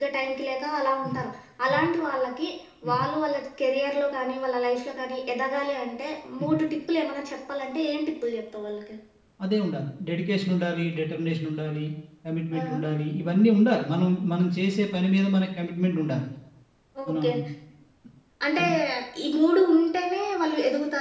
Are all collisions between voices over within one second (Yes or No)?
Yes